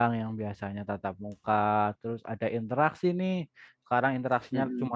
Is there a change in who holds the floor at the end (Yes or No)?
No